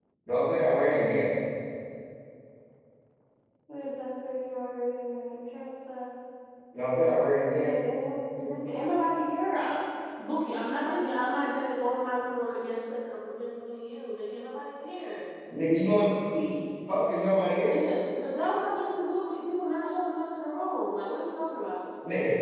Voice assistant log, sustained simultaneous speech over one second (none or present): none